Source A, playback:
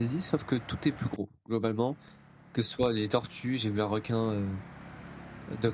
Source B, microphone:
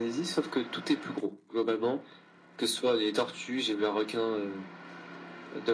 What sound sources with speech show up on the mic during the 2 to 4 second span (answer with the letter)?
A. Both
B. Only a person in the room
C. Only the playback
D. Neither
C